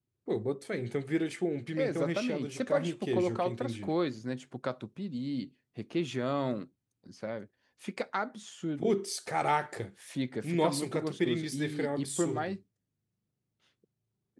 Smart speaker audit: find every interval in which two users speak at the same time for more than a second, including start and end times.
1.8-3.9, 10.4-12.6

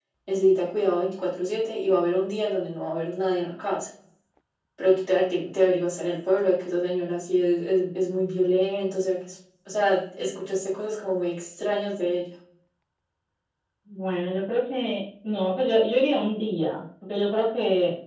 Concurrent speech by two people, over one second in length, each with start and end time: none

